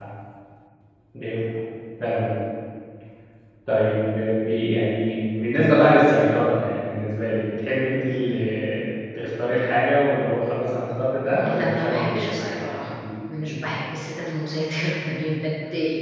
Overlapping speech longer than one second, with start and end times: 11.3-12.8

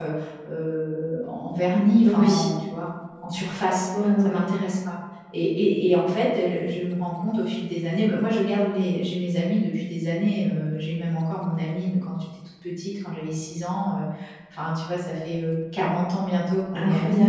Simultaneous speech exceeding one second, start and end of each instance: none

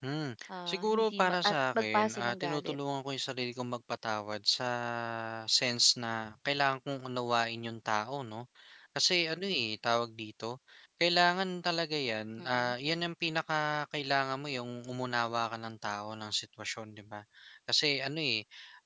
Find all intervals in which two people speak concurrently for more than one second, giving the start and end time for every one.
0.7-2.8

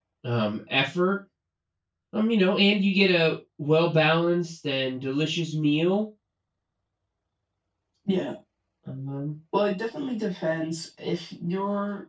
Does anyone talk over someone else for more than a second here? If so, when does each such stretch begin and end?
none

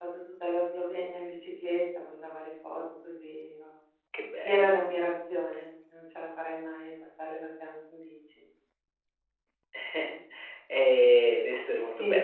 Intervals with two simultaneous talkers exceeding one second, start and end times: none

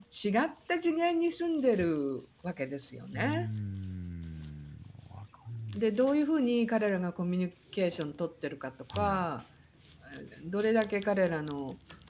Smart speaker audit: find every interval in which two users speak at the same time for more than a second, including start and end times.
none

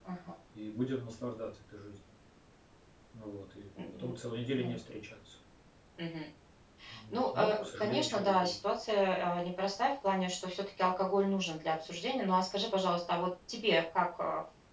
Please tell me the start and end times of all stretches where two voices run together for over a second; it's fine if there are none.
7.1-8.6

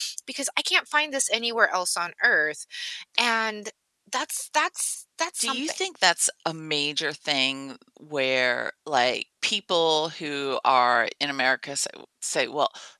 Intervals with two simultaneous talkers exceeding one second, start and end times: none

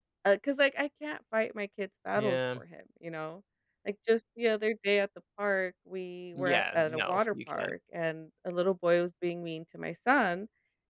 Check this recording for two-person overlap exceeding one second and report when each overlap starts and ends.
6.4-7.7

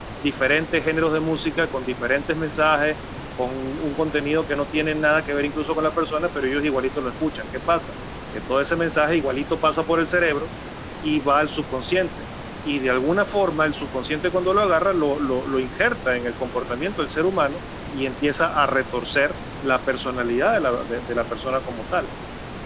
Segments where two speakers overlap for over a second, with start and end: none

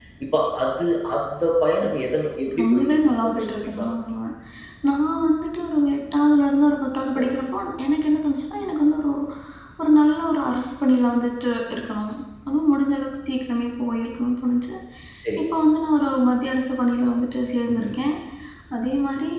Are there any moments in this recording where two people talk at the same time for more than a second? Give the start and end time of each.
2.5-3.9

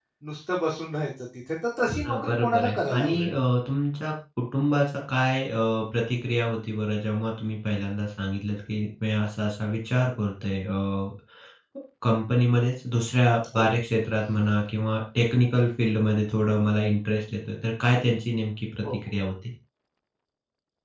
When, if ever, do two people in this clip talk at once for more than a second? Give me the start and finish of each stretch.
2.0-3.4

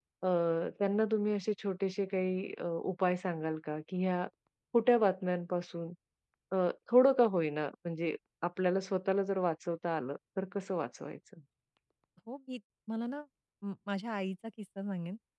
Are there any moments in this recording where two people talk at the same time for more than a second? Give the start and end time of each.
none

